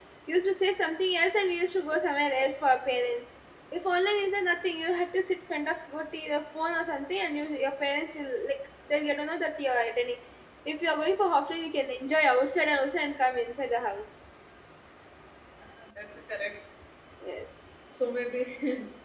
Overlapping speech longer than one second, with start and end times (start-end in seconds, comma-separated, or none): none